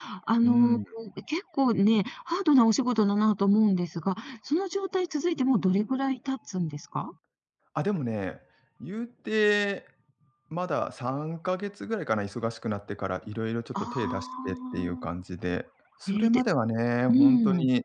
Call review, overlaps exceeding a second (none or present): present